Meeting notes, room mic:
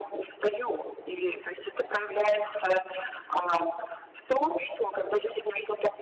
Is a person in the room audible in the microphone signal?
No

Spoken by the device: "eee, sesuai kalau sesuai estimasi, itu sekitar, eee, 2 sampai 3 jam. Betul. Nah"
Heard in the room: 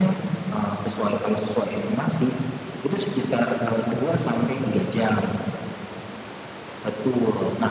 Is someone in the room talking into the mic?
No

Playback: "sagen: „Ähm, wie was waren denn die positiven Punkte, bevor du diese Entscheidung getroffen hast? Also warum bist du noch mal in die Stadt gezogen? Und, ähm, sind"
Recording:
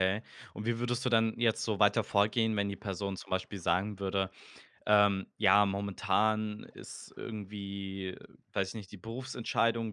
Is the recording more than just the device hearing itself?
Yes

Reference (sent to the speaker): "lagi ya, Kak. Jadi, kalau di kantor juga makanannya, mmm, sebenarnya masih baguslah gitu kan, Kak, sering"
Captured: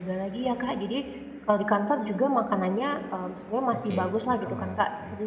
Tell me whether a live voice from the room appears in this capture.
Yes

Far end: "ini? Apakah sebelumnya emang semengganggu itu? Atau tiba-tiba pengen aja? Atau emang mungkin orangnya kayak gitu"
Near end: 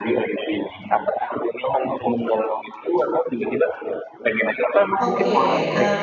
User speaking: Yes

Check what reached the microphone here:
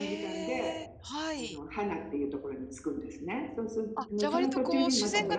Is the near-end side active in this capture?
Yes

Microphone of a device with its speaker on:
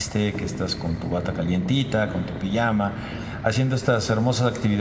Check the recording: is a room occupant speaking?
Yes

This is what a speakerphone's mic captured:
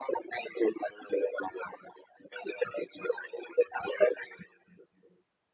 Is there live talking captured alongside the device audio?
No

